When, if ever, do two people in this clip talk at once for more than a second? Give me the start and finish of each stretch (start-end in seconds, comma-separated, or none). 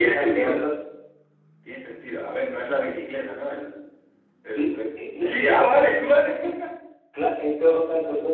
4.5-5.7